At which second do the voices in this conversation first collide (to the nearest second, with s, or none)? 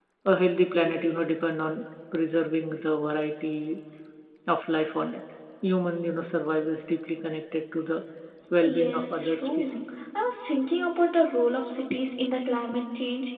9 s